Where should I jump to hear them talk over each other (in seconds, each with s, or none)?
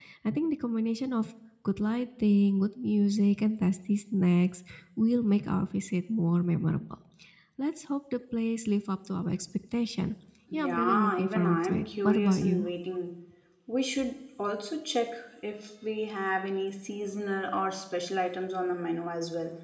10.5 s